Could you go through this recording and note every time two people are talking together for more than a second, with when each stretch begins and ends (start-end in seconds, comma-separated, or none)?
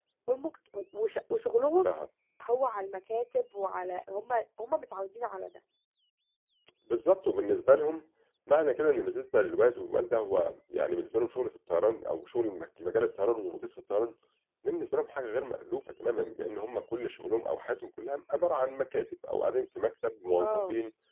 none